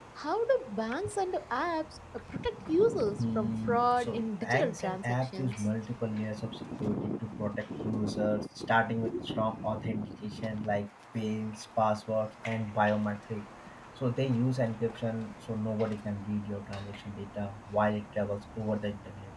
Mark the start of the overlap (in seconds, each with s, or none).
3.2 s